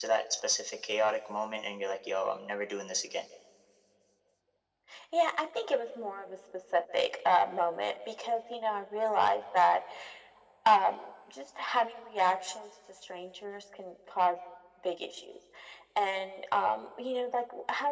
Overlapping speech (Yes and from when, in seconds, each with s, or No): No